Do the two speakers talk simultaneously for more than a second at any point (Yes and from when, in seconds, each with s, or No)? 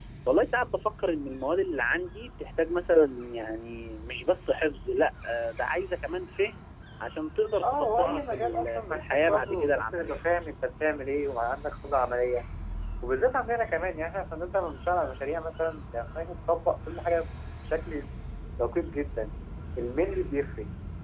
Yes, from 7.6 s